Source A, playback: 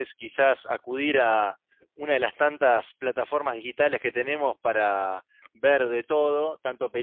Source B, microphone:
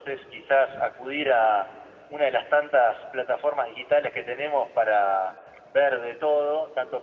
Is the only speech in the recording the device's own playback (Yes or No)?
Yes